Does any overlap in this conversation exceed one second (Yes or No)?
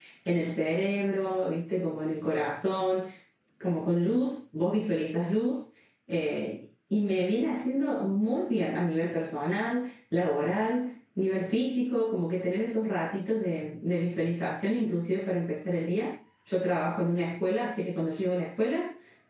No